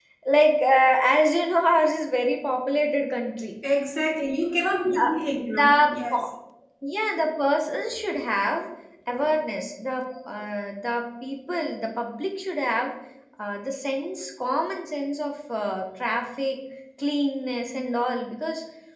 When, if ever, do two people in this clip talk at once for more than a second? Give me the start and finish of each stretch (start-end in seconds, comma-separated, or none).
none